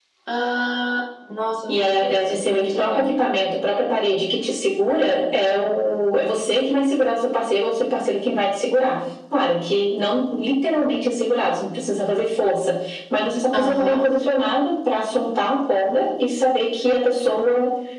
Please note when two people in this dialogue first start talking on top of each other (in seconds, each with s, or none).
1.7 s